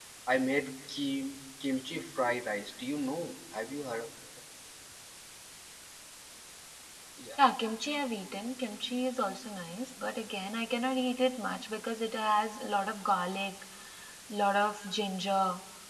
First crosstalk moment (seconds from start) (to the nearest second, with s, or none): none